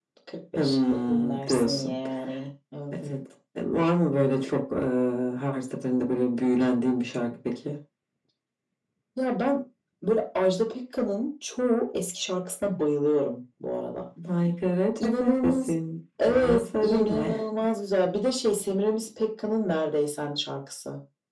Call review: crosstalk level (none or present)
present